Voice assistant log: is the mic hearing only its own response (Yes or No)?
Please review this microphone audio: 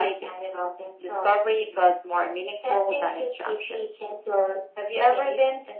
Yes